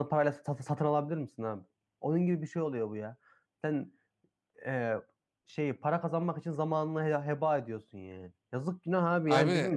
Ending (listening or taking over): listening